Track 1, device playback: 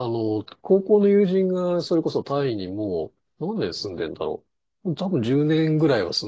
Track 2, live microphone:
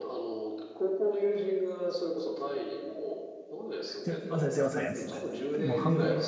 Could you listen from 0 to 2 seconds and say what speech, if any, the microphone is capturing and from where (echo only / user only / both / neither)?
echo only